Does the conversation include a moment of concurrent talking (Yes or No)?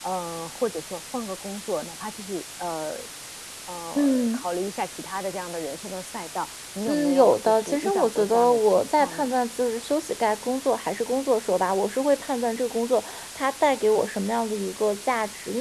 Yes